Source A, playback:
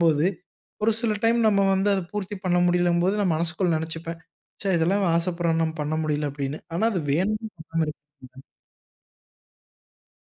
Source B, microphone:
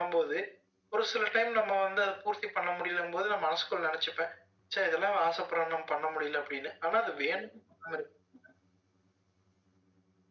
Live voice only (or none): none